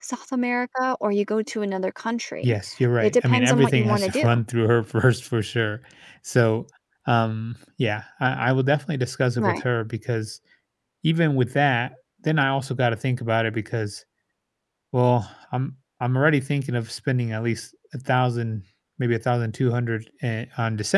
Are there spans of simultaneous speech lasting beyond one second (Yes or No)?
Yes